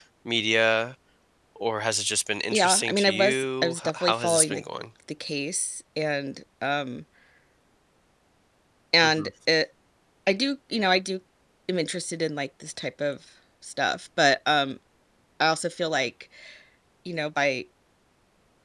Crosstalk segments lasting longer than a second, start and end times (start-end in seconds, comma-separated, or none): 2.5-4.6